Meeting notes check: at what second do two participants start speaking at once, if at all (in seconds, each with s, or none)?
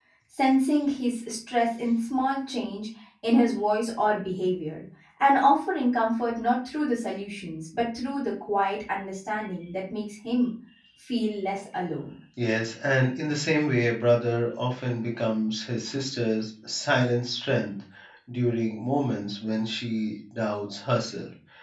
none